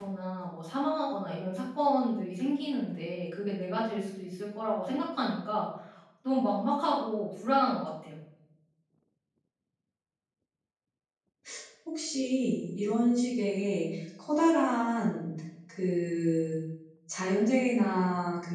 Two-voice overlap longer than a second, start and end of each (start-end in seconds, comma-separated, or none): none